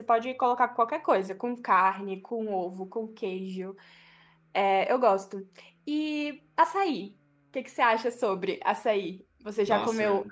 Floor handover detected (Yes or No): Yes